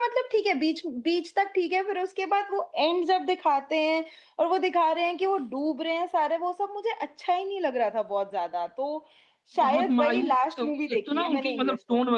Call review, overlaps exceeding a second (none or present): present